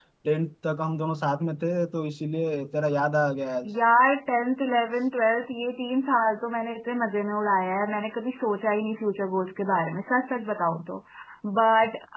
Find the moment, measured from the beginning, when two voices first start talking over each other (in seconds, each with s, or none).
none